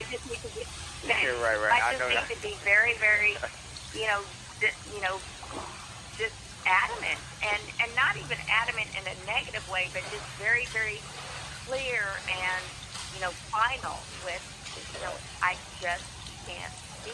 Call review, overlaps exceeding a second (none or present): present